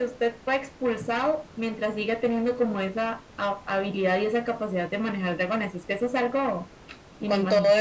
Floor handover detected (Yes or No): Yes